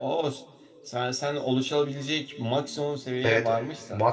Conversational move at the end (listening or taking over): taking over